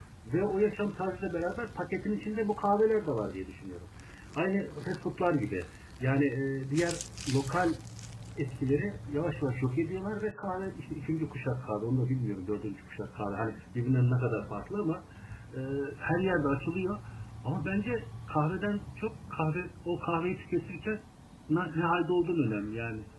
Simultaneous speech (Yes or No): No